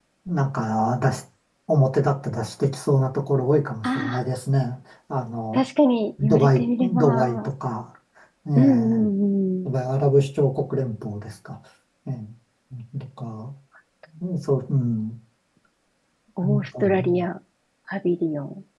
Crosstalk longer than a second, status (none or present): present